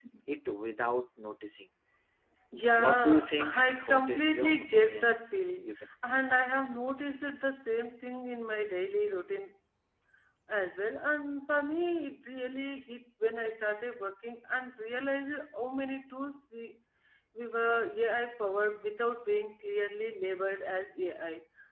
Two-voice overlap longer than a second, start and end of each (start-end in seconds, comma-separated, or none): 2.8-5.2